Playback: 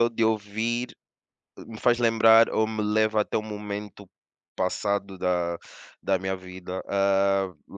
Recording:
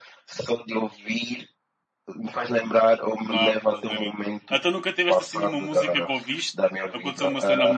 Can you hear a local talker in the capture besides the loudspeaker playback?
Yes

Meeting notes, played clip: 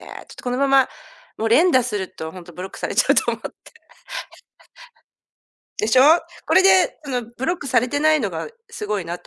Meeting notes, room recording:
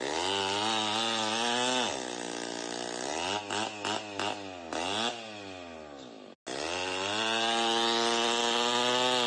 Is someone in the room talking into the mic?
No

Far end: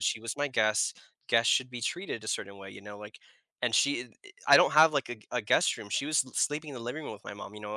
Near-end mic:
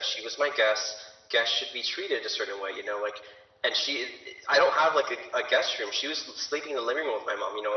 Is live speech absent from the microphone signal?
Yes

